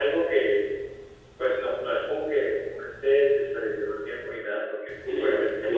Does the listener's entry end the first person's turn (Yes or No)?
No